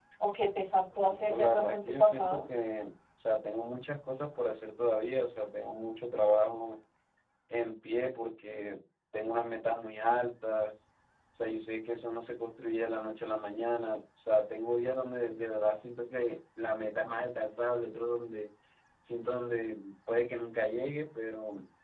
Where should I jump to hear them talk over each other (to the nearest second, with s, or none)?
1 s